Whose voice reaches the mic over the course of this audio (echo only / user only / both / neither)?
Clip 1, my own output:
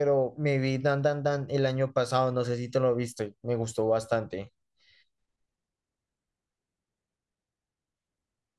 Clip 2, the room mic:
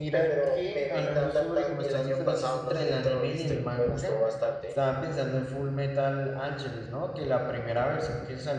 both